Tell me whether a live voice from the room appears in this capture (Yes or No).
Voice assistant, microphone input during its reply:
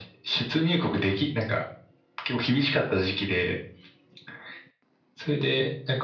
No